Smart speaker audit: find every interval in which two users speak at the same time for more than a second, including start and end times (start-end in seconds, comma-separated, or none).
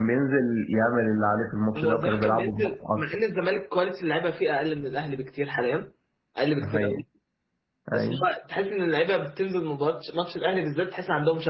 1.8-3.0